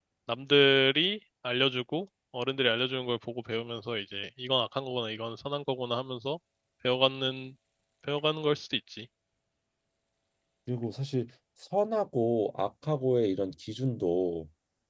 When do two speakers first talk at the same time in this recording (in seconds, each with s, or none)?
none